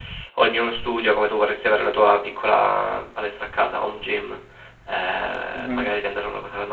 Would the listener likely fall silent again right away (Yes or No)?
Yes